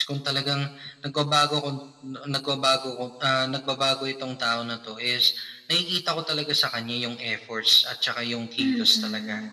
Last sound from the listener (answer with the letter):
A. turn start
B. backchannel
A